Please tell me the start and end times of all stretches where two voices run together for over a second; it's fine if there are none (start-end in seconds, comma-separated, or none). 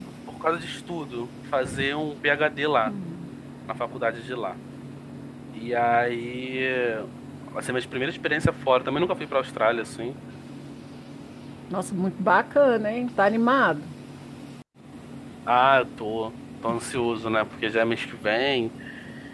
none